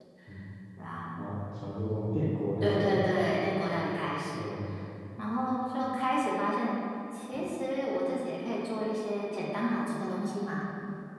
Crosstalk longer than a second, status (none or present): none